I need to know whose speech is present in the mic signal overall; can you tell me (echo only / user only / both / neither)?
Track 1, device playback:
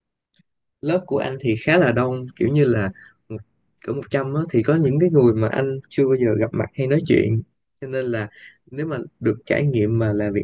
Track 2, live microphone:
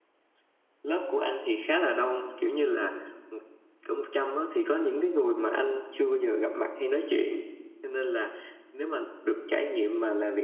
echo only